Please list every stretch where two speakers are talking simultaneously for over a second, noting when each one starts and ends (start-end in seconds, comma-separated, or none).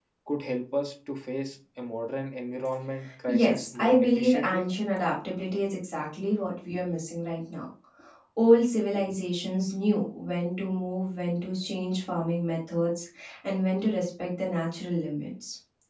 3.3-4.7